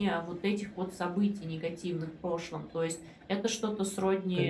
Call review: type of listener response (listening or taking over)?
listening